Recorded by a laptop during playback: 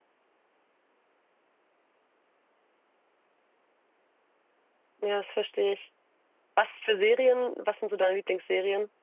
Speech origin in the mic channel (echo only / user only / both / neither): user only